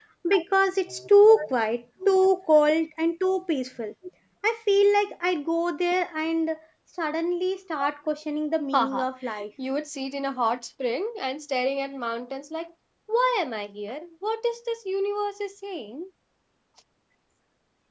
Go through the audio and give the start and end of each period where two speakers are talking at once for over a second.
none

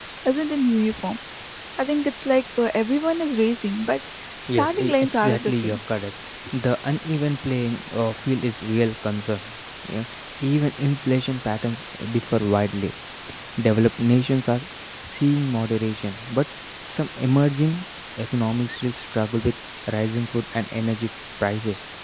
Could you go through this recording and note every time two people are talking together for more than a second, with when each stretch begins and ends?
4.5-5.8

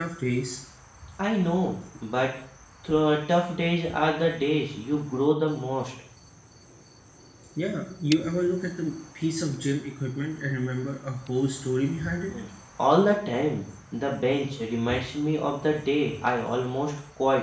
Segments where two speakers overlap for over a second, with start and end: none

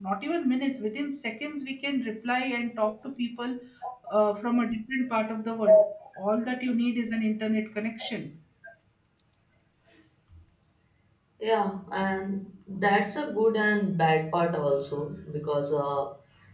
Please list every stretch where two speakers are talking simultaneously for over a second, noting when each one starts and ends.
none

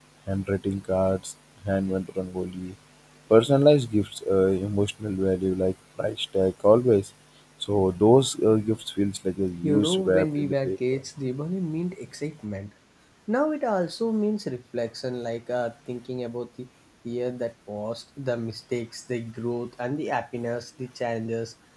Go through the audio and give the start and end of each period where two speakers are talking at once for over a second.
9.6-11.0

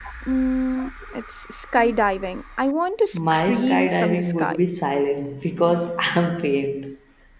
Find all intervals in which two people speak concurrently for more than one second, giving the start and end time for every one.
3.1-4.5

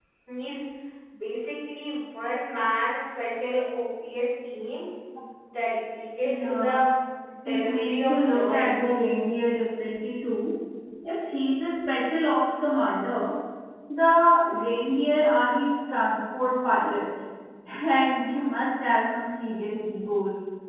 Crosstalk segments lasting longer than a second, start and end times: 7.5-8.7

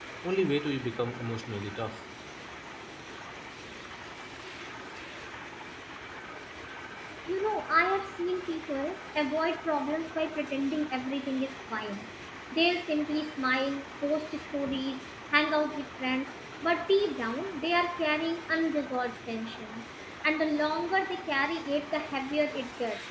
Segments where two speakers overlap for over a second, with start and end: none

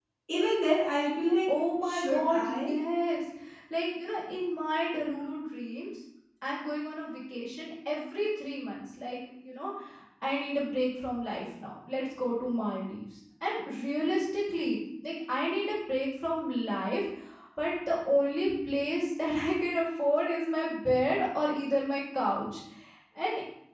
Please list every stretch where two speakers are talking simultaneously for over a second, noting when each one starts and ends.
1.5-2.8

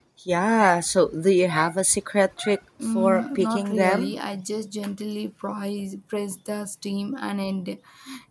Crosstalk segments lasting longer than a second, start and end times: 2.8-4.2

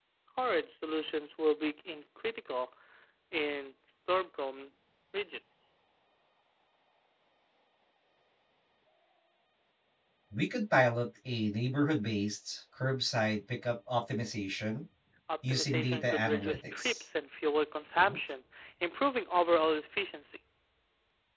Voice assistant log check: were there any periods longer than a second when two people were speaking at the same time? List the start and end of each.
15.5-17.0

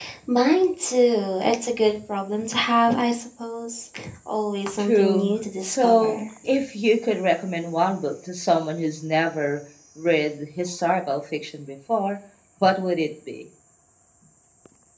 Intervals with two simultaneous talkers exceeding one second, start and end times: 4.8-6.2

